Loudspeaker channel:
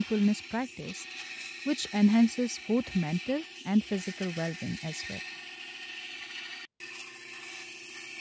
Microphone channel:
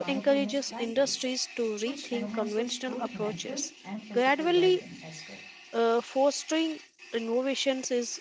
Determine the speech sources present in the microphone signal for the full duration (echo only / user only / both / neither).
both